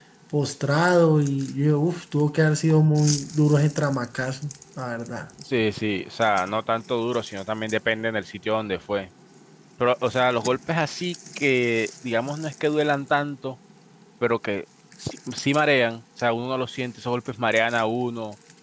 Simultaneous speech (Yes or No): No